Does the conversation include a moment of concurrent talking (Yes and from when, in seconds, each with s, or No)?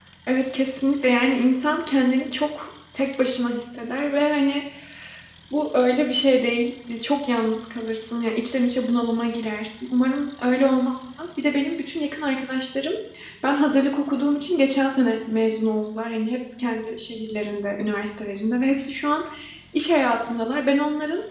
No